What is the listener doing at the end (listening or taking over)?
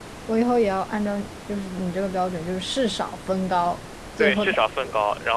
taking over